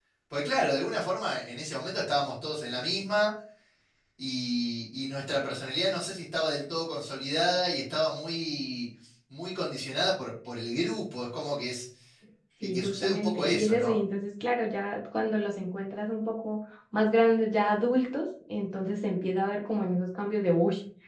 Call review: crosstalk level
present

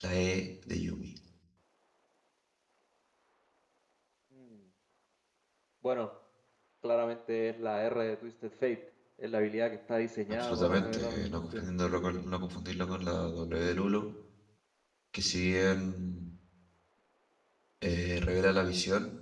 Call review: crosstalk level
present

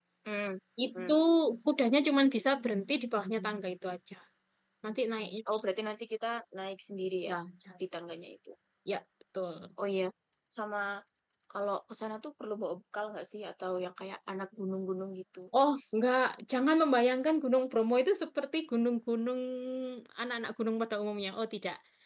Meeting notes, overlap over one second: none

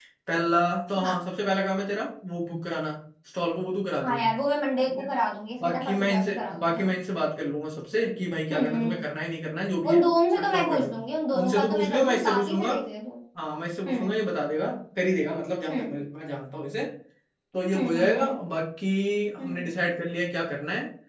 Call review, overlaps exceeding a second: present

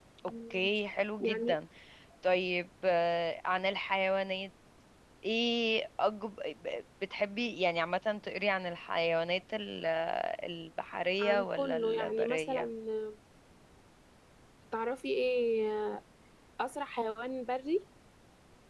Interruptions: present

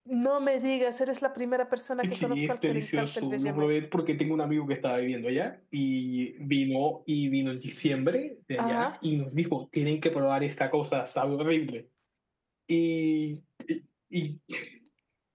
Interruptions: present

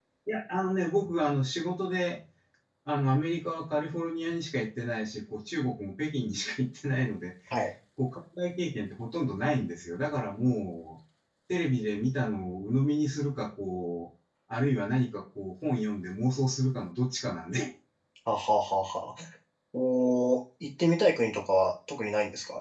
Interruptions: none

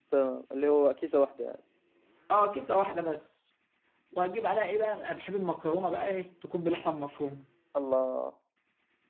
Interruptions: none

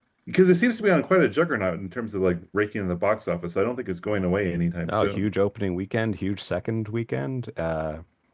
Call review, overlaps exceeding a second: none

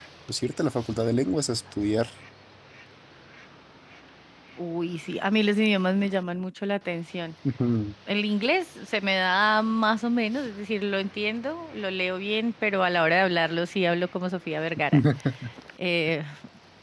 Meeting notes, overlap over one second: none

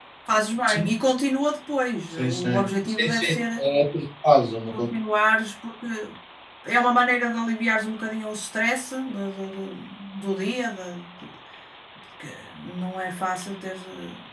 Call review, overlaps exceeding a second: present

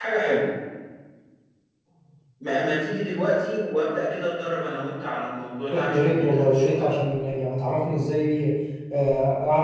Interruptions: present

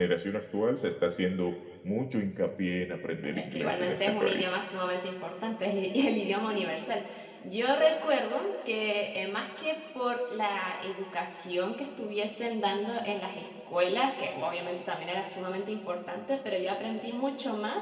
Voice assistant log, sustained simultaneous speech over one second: present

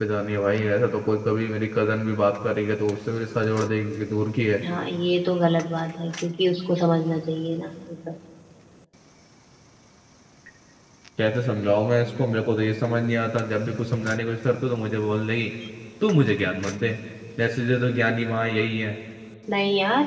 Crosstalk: none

